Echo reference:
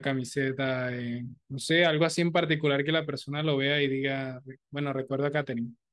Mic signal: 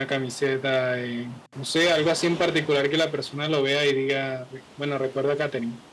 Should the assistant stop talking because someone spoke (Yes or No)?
No